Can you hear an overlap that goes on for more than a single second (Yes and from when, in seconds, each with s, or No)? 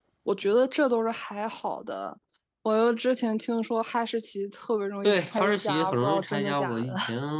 Yes, from 5.0 s